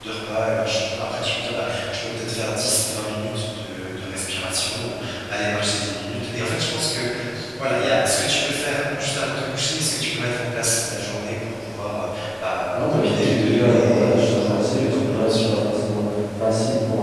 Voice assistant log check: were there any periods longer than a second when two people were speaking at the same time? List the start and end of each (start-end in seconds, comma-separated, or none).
12.7-15.5